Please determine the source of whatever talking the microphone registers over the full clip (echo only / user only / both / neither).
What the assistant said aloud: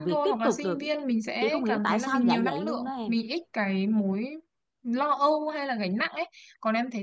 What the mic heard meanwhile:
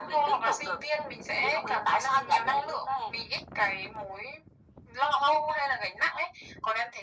echo only